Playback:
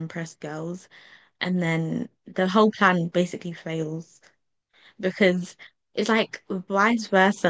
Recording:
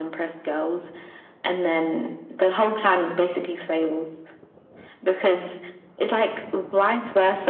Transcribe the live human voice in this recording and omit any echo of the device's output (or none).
none